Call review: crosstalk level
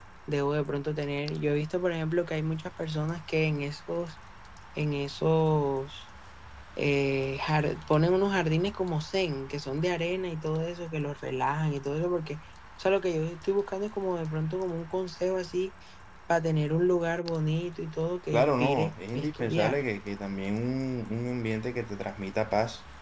present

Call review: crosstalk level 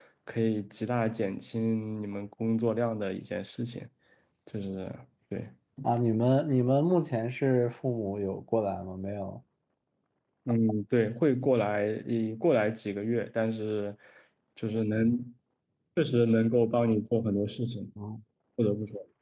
none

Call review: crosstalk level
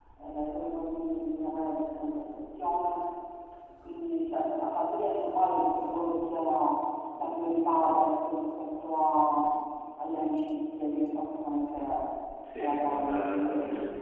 present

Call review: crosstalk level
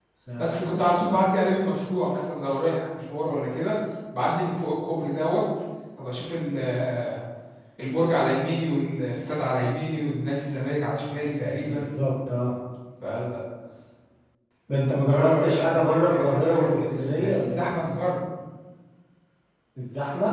present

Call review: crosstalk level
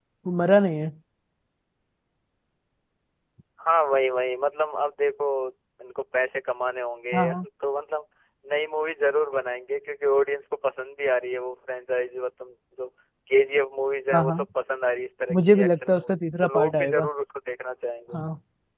present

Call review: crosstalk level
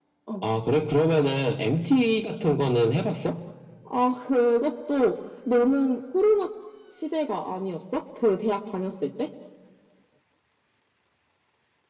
none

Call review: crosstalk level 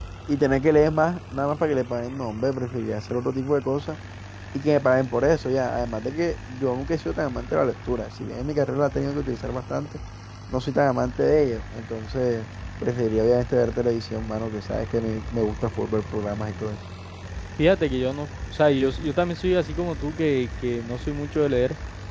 none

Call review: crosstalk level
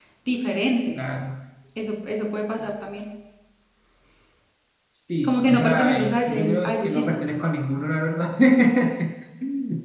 present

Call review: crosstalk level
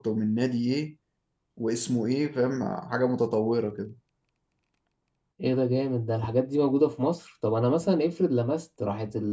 none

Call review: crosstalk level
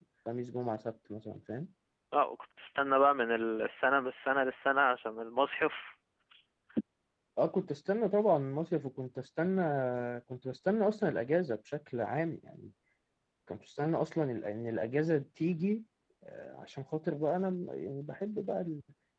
none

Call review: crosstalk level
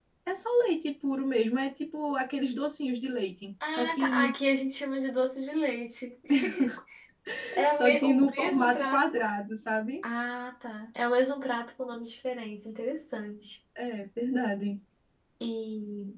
present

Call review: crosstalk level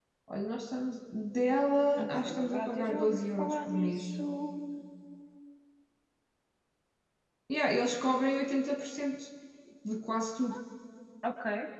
present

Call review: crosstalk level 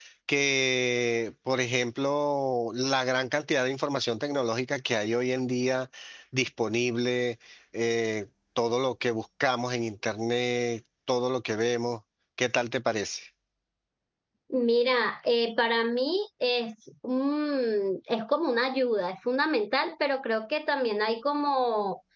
none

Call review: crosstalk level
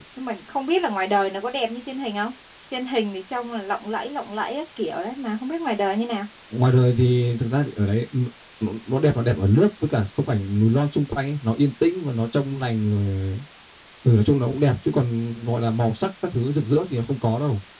none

